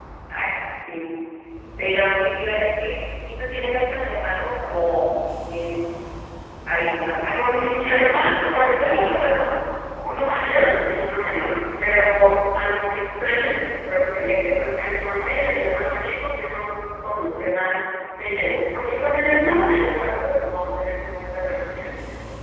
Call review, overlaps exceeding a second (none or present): present